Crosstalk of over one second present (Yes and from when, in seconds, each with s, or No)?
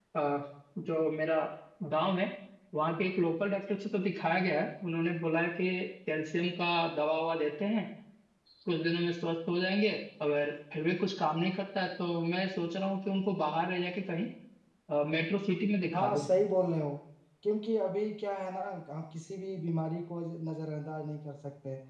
No